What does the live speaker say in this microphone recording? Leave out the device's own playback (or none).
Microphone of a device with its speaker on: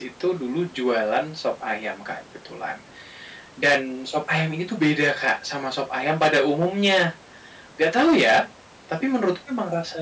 none